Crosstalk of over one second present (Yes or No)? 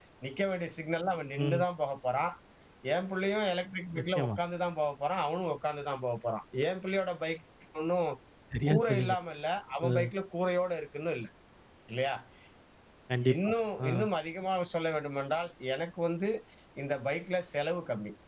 No